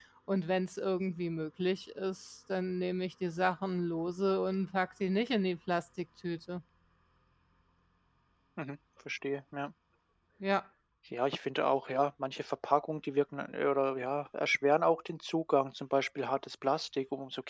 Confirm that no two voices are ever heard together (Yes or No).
Yes